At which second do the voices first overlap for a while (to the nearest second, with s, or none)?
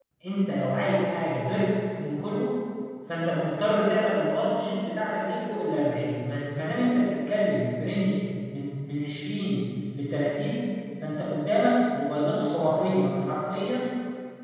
none